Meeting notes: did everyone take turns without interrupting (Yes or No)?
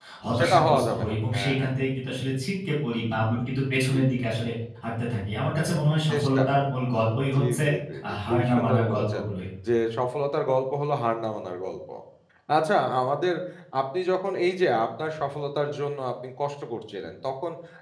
No